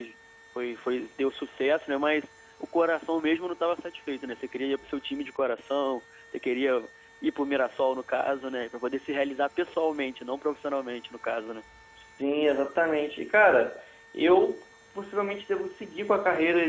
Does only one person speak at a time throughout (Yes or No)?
Yes